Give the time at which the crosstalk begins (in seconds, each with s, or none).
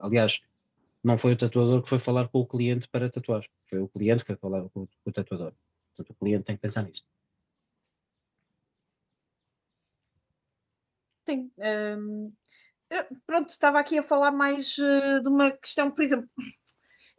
none